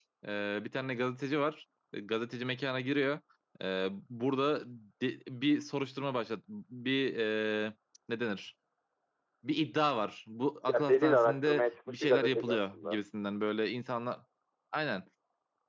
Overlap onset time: 10.7 s

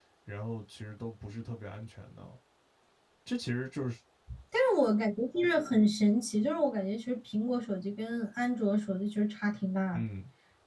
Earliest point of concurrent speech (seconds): none

